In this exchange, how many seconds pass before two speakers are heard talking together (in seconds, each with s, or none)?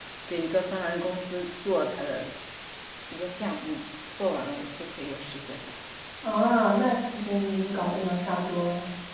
none